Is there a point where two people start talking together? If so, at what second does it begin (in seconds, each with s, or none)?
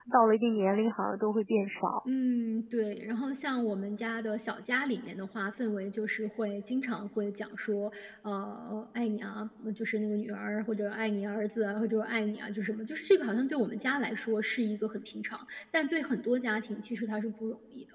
none